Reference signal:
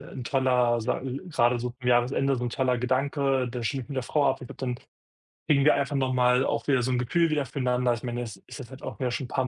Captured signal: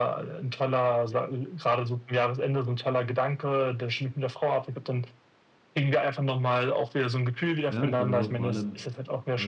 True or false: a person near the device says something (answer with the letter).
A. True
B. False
A